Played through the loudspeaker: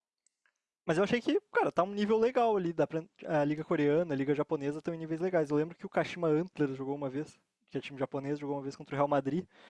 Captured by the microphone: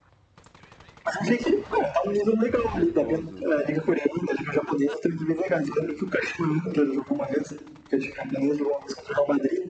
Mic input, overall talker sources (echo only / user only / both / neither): both